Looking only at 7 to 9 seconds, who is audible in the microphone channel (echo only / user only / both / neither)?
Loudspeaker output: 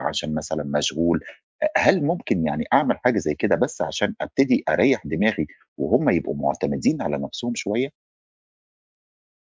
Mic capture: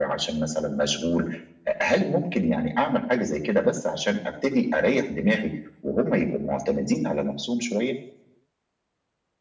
echo only